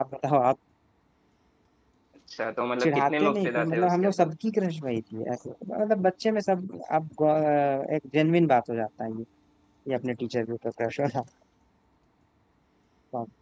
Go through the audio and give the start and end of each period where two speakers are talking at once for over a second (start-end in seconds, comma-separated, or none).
2.8-4.3